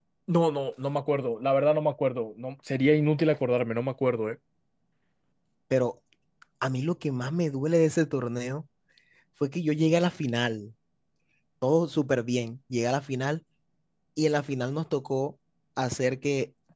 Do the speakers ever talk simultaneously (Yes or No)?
No